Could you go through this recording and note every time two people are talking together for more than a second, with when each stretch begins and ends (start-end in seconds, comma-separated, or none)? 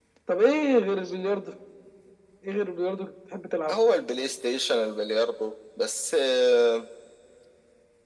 none